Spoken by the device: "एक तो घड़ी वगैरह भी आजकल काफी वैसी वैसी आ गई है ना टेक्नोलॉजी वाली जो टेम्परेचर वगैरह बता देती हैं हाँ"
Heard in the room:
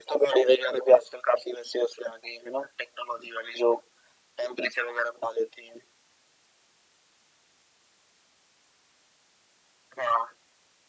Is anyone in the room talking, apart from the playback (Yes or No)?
No